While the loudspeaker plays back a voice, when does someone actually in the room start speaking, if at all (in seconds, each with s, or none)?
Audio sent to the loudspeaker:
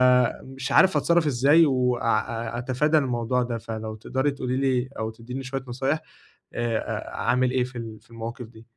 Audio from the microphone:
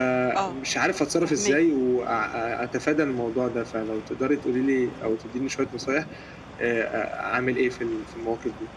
0.4 s